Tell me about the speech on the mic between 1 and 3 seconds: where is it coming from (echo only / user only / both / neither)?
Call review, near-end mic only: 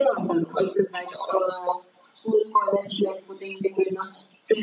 echo only